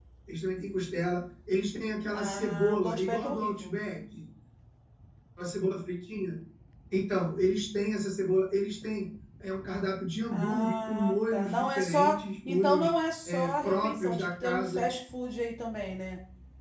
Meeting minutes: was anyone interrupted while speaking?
Yes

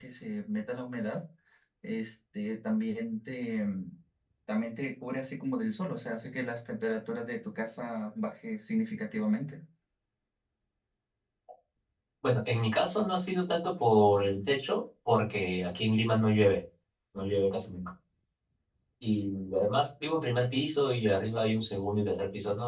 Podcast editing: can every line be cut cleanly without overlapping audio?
Yes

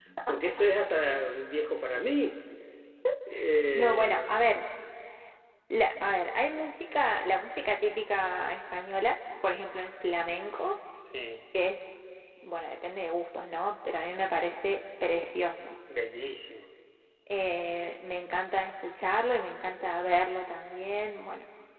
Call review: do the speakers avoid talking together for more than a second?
Yes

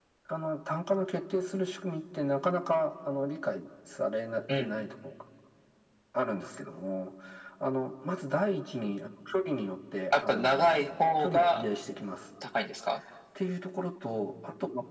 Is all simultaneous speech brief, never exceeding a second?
No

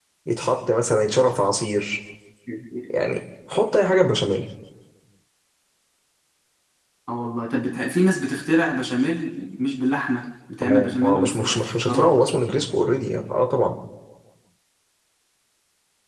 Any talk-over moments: Yes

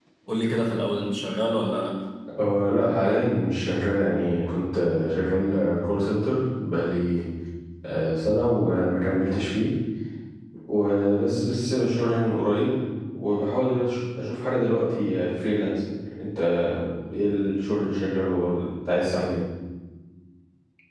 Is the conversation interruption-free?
Yes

